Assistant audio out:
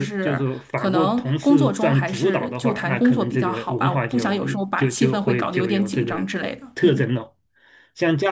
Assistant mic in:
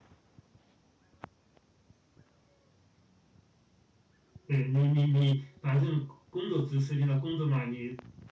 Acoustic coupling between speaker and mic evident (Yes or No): No